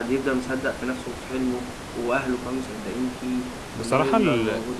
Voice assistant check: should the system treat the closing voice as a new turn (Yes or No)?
Yes